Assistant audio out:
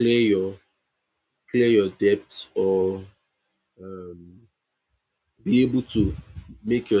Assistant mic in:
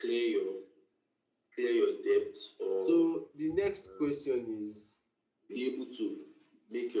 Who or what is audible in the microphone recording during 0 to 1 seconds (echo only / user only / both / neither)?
echo only